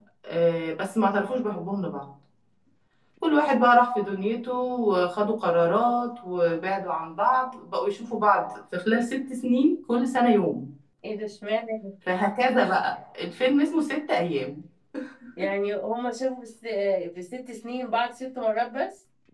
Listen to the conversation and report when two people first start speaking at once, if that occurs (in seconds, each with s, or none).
none